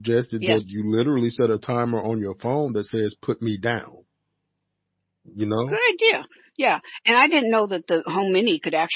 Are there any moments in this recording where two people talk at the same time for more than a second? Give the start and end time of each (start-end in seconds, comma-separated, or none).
none